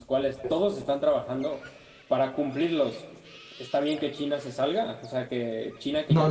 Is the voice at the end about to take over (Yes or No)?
Yes